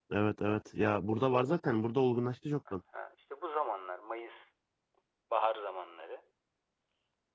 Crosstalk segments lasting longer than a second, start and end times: none

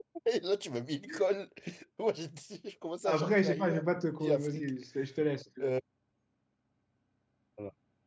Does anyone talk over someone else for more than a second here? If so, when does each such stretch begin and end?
3.0-4.6

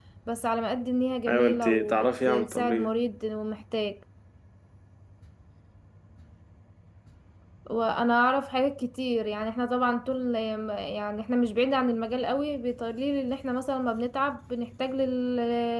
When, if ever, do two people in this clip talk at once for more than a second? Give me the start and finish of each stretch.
1.3-2.9

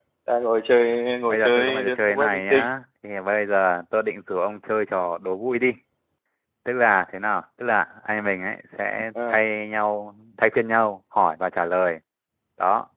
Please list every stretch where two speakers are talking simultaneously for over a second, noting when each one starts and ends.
1.3-2.6

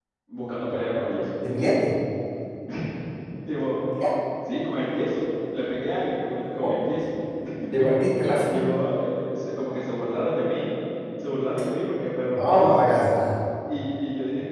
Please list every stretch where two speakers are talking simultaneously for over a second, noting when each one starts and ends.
none

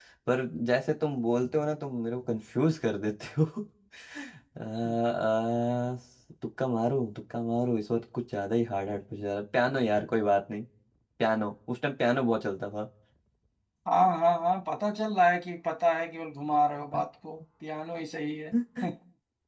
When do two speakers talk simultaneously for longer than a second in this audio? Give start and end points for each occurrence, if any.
none

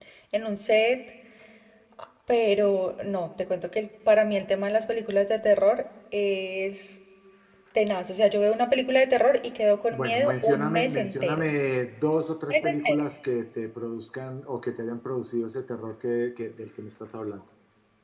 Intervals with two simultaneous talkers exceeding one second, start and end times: 9.9-11.5

